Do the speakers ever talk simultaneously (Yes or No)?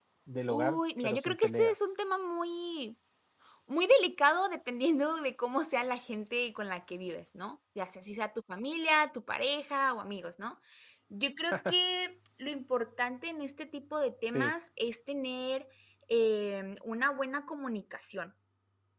Yes